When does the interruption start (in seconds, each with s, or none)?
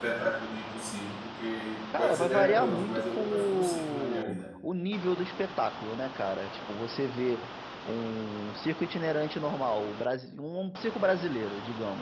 1.9 s